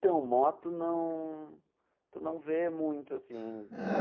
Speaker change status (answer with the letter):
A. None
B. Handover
B